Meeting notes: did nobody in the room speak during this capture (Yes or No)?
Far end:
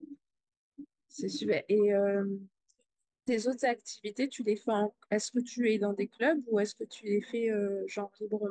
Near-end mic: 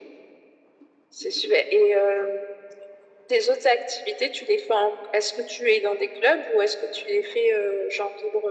Yes